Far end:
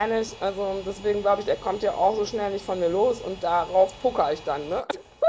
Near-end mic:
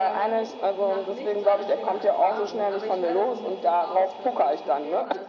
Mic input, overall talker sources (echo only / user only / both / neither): both